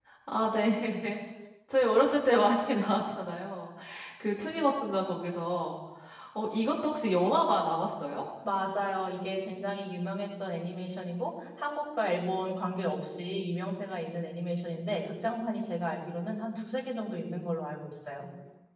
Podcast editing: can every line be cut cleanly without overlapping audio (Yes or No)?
Yes